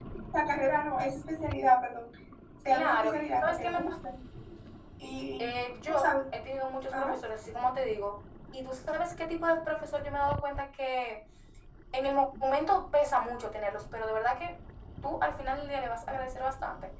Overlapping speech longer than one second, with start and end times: 2.6-3.9

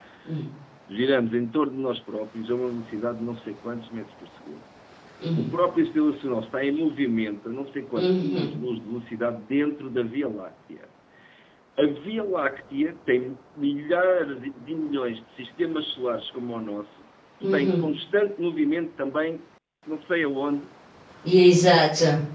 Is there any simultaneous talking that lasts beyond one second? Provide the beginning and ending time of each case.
none

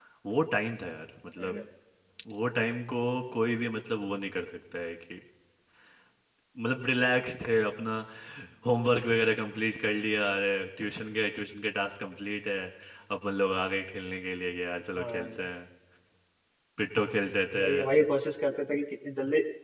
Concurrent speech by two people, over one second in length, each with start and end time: none

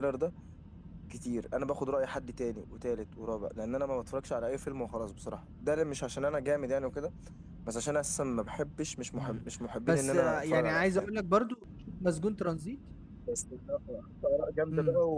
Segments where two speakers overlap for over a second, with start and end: 9.9-11.1

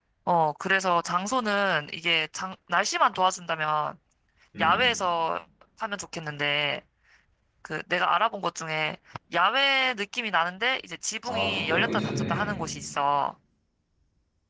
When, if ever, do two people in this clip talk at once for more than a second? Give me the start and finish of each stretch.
11.3-12.6

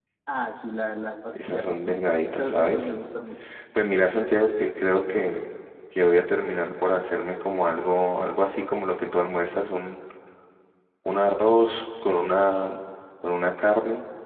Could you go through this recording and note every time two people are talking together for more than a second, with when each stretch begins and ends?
1.5-3.0

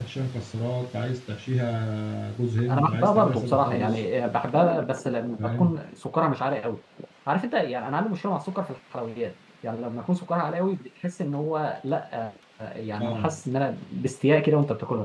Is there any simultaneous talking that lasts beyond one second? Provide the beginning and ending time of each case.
2.7-4.0

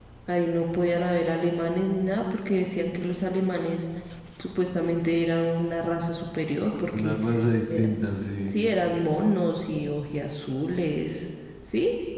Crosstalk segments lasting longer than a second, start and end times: none

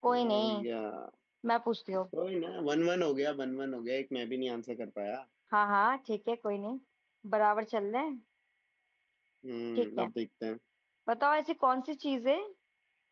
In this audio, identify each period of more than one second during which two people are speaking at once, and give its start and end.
none

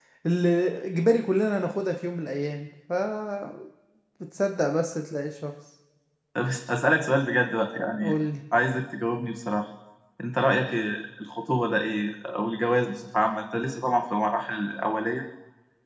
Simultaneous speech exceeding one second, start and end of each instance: none

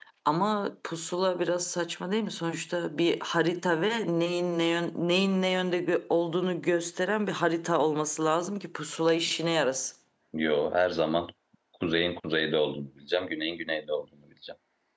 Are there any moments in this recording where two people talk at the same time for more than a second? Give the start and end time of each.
none

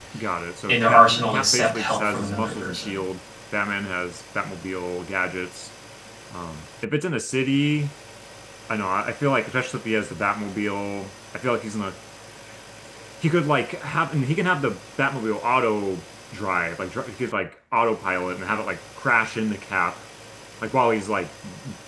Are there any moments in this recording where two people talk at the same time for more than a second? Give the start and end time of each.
0.7-2.9

